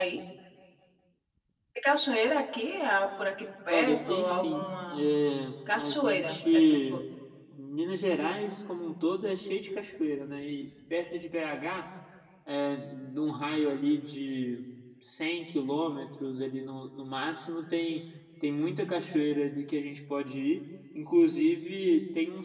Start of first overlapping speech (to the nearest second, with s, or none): 4 s